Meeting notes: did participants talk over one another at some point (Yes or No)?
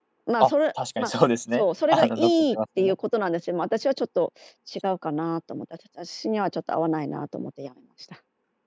Yes